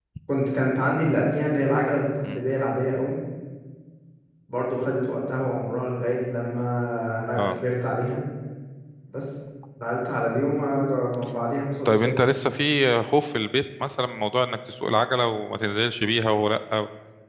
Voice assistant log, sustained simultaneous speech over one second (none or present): none